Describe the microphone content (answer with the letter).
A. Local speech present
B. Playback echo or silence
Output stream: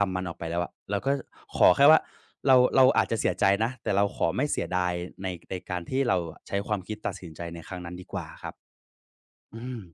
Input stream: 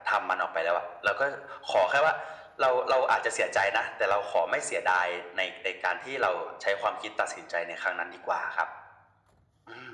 B